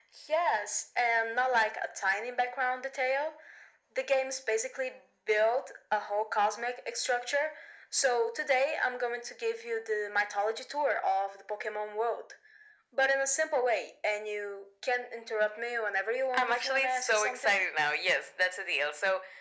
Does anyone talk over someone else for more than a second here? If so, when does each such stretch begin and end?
16.3-17.6

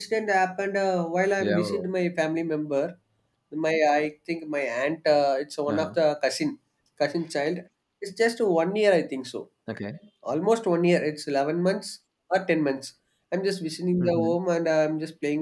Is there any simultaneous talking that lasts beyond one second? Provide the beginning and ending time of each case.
none

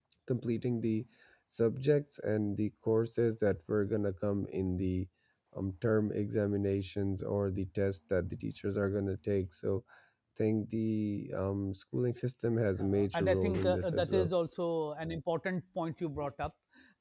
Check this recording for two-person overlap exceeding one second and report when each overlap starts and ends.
12.8-14.3

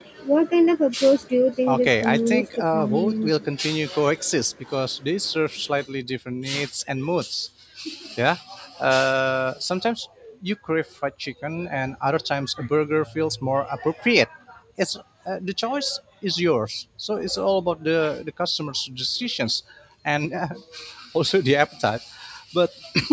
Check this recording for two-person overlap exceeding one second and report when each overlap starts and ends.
1.7-3.3

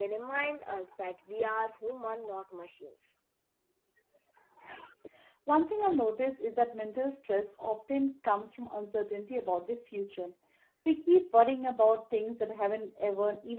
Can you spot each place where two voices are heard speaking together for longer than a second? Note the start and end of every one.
none

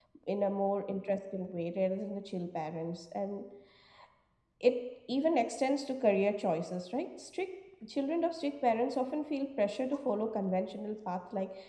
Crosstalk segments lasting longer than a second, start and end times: none

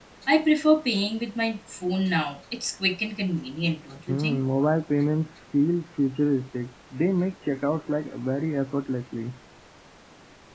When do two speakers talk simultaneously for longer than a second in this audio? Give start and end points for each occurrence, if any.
none

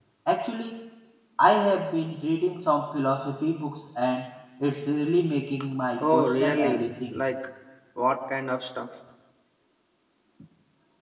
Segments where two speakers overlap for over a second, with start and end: 6.0-7.2

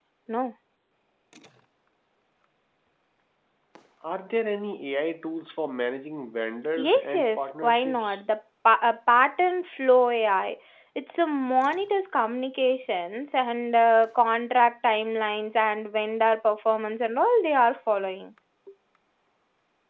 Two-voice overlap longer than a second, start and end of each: 6.8-8.2

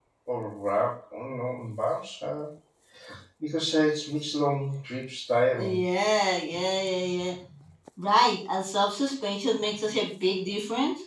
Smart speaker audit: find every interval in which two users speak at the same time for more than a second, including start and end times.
none

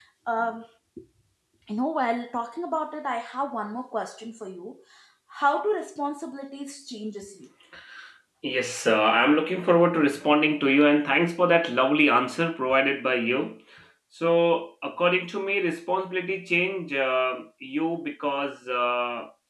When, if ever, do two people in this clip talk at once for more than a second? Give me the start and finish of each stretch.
none

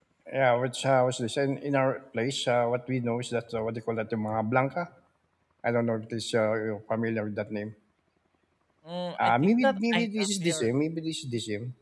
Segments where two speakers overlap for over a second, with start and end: 9.2-10.7

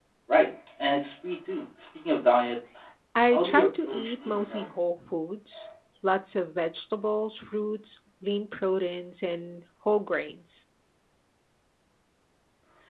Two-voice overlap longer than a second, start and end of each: 3.3-4.7

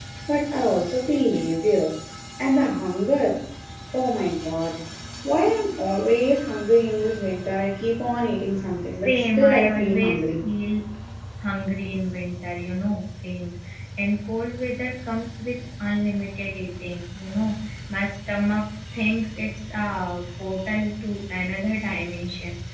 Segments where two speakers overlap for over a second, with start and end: 9.1-10.5

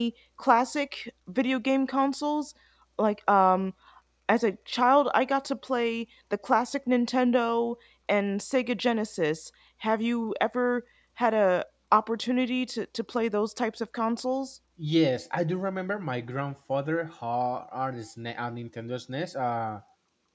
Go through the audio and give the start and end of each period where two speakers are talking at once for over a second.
none

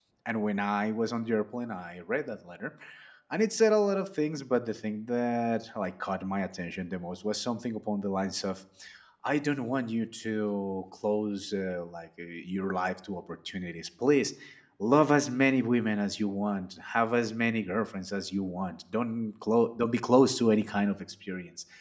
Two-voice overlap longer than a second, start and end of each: none

